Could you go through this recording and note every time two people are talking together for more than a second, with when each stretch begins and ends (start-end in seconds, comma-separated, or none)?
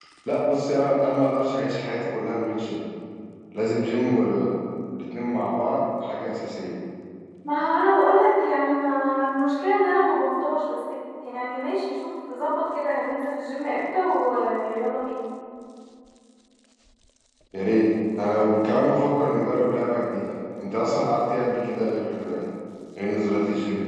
none